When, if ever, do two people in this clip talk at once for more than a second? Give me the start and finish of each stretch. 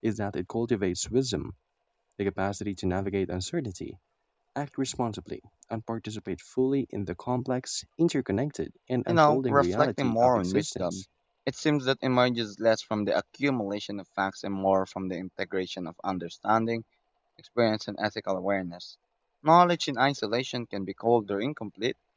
9.1-11.0

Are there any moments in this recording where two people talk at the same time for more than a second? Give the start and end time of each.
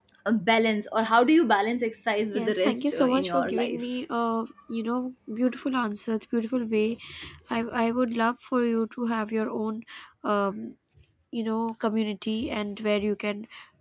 2.3-3.8

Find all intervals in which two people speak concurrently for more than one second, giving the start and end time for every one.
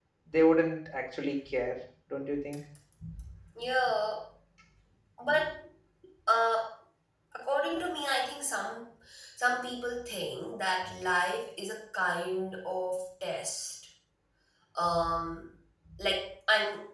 none

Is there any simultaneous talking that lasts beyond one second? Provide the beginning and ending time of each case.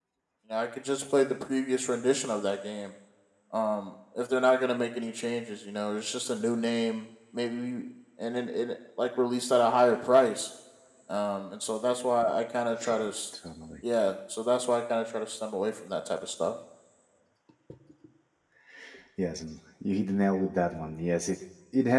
none

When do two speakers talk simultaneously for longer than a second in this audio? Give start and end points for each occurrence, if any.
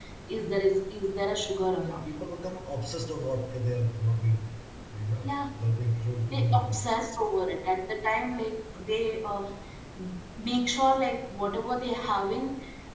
none

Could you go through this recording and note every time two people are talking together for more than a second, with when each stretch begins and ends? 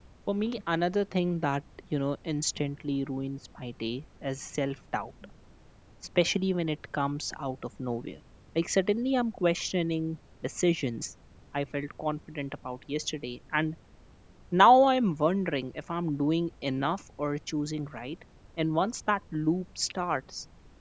none

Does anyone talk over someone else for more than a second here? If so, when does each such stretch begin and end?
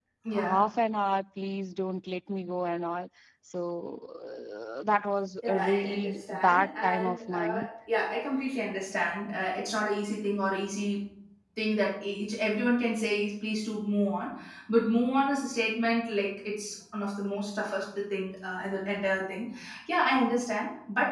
5.4-7.7

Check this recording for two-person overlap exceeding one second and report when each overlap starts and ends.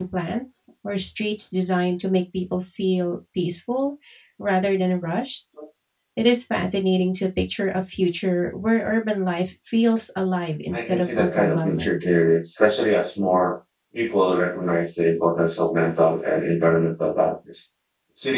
10.7-12.0

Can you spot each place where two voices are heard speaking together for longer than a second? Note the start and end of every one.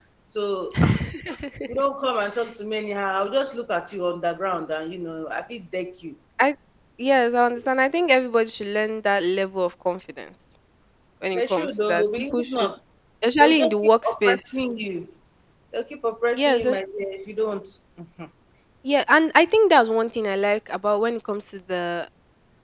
11.3-12.7, 13.4-14.6

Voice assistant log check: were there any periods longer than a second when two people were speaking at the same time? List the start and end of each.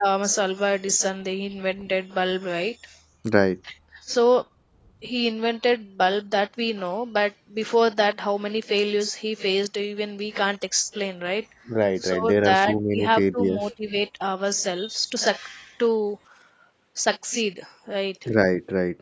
12.0-13.7

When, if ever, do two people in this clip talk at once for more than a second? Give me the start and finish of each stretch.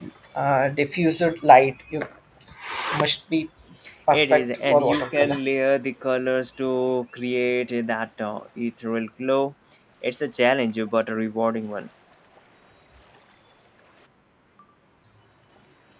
4.1-5.4

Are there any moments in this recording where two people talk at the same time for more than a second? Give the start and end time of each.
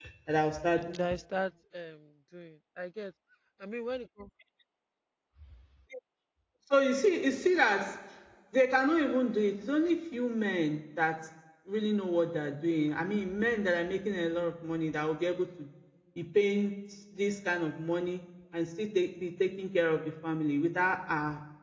none

